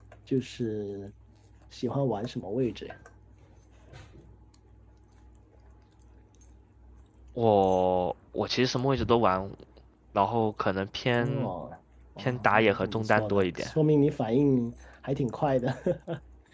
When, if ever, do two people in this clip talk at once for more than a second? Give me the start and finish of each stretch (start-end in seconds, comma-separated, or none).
12.2-13.7